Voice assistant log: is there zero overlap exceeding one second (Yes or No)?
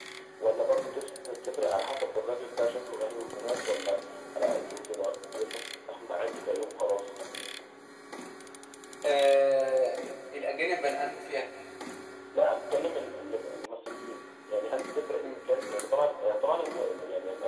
Yes